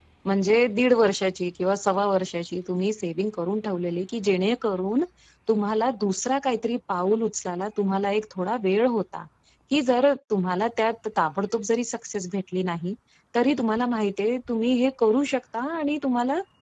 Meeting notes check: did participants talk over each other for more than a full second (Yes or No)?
No